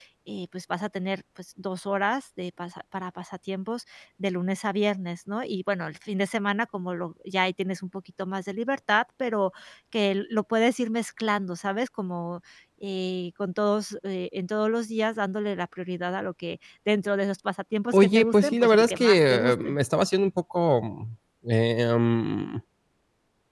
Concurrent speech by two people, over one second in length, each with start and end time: 17.9-19.8

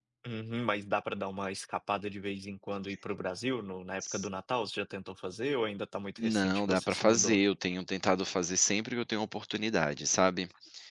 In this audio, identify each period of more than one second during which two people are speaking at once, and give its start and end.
6.2-7.4

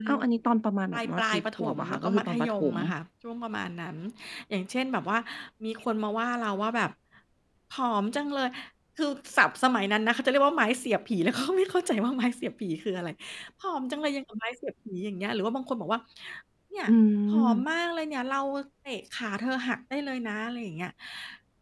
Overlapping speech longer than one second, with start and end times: 0.9-2.8

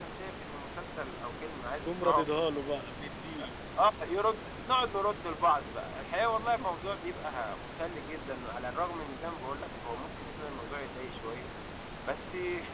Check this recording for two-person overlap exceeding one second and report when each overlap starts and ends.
none

